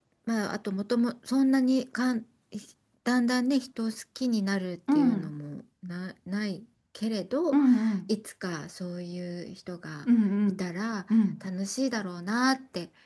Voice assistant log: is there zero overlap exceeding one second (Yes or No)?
Yes